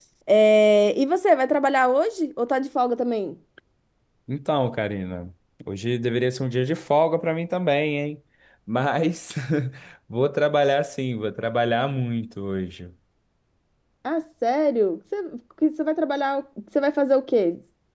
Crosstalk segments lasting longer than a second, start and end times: none

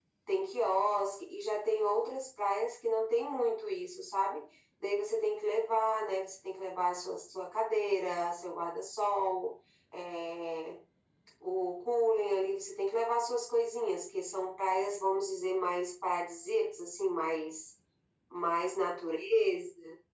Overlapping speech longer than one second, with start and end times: none

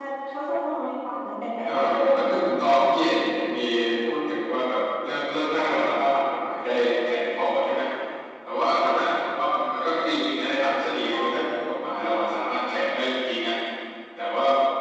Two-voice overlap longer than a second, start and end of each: 1.6-3.1

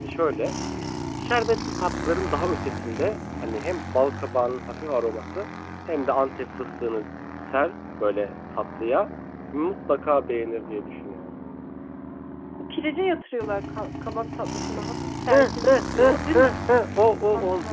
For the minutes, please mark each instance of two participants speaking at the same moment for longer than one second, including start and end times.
15.3-16.5

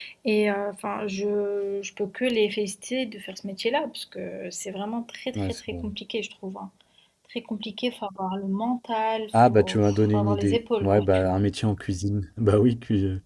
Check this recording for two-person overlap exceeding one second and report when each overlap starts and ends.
9.3-11.4

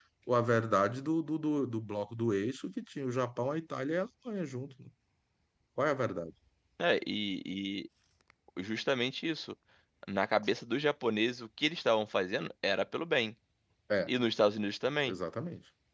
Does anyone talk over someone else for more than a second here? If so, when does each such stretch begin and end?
none

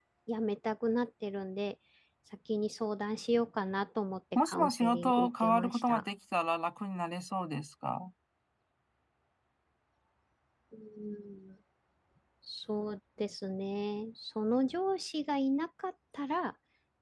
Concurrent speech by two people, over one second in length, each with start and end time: 4.3-6.0

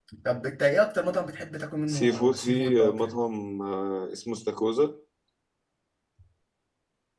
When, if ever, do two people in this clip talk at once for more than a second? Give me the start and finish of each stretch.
1.9-3.1

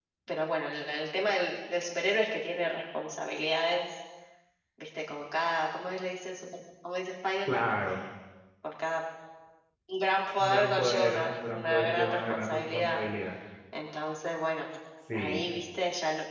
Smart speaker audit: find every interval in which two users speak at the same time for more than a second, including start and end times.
10.4-13.0

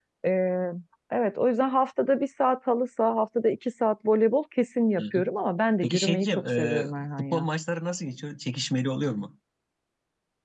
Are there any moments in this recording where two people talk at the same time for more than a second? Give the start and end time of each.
5.8-7.5

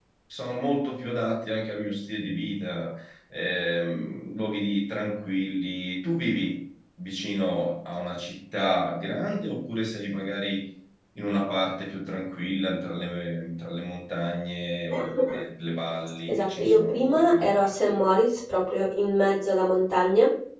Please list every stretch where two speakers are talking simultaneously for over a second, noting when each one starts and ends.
16.3-17.9

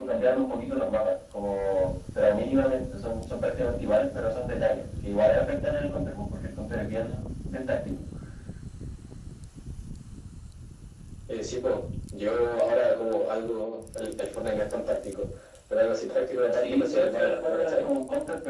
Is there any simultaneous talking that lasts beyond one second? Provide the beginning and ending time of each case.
16.5-17.9

